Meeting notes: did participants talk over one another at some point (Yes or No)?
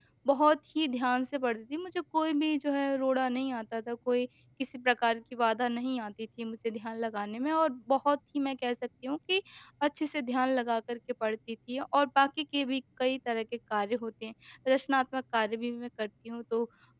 No